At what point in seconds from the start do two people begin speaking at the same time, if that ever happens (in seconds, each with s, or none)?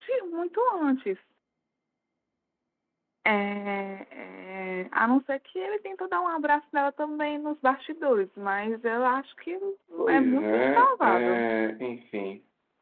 10.1 s